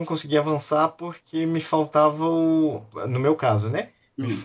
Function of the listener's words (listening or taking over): listening